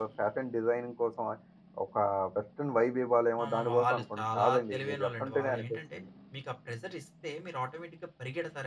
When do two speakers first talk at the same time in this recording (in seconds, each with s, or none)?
3.4 s